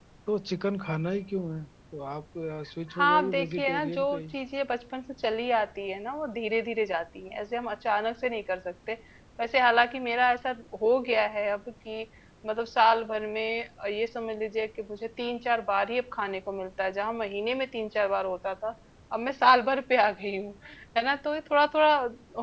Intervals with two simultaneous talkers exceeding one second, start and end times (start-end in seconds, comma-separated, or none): 3.0-4.3